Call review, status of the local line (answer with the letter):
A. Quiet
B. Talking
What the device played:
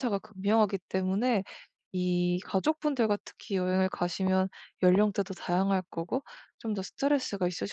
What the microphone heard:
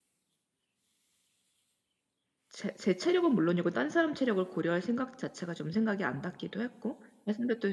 B